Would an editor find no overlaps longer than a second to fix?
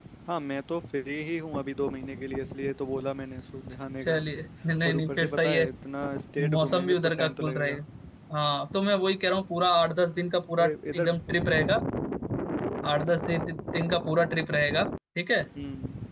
No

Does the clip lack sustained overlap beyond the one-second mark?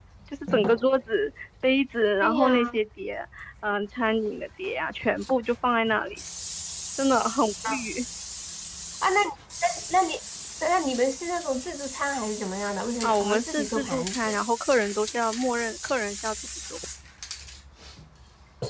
No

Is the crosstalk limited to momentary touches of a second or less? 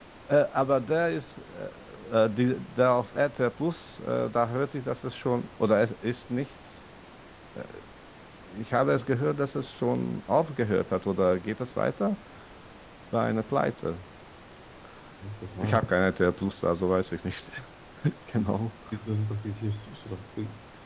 Yes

